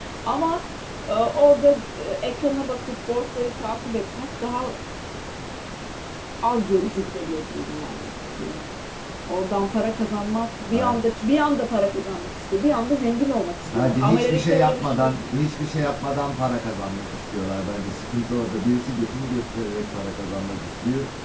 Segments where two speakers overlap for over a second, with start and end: 13.6-15.1

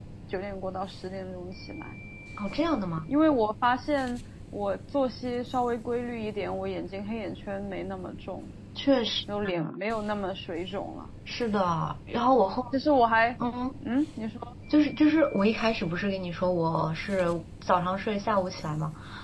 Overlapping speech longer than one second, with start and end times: none

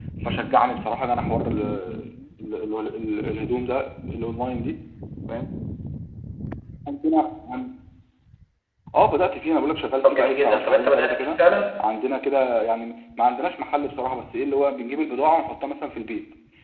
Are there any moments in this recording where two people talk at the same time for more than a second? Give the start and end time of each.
10.0-11.4

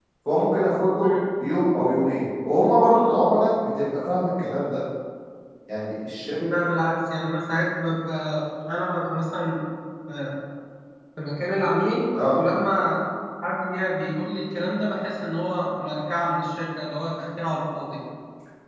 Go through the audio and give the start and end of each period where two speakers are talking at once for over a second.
none

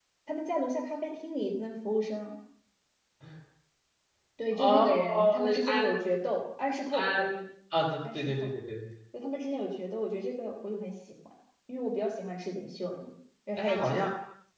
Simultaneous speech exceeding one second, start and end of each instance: 4.5-5.9

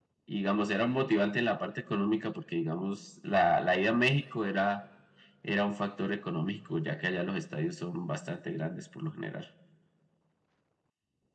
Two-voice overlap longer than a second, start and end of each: none

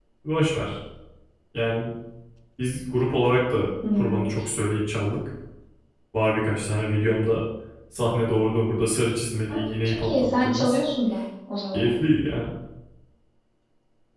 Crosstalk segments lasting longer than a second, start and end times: 9.5-10.8

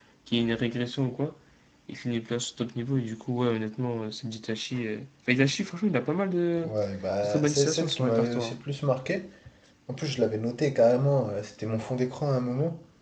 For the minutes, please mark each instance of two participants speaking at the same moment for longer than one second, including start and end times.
7.2-8.6

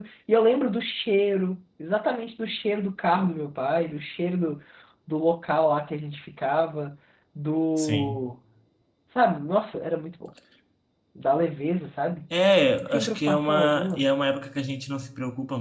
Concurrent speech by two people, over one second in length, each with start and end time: 12.8-14.0

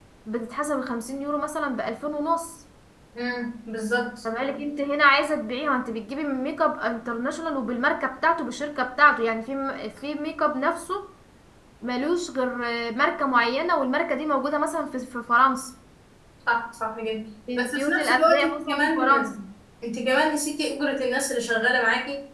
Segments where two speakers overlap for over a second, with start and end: 17.6-19.3

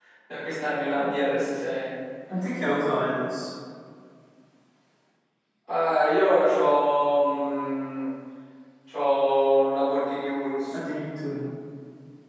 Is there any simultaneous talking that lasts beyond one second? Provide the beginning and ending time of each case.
none

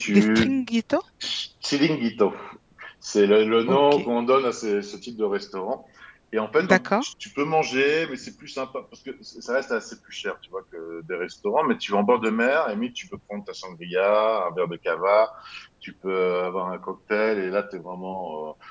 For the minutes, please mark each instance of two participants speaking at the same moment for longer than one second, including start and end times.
none

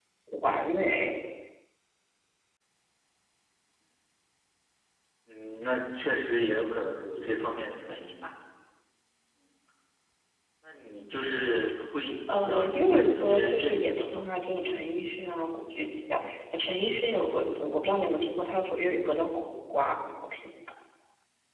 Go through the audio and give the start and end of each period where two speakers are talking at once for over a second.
12.3-14.2

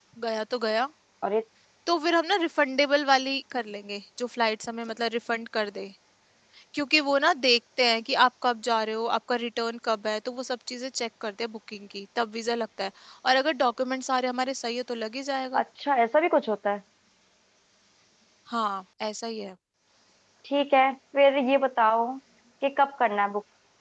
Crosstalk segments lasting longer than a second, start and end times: none

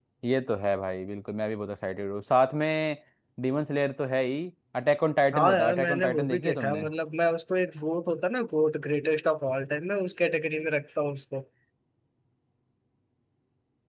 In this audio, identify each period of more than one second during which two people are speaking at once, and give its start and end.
5.3-6.8

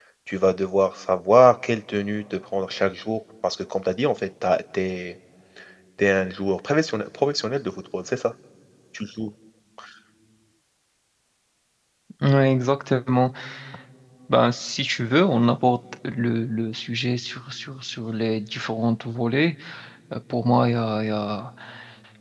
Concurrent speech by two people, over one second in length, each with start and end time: none

